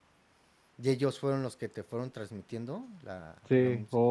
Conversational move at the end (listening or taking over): taking over